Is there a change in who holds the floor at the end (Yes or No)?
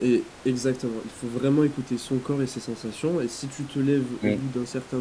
No